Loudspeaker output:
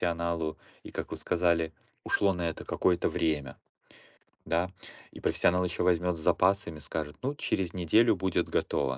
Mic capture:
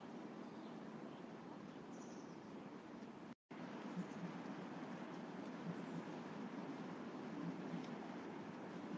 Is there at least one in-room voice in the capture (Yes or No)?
No